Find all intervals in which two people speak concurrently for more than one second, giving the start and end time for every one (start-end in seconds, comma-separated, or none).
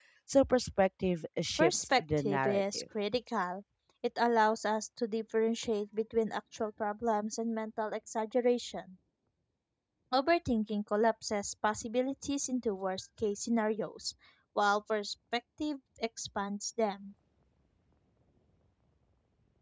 1.6-2.8